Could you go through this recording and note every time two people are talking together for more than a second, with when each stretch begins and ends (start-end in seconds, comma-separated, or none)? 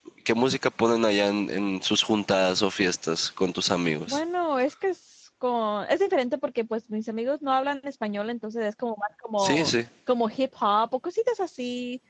none